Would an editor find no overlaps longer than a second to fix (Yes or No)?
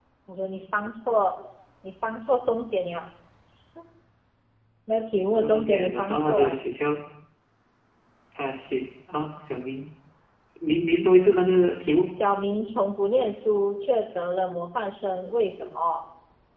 No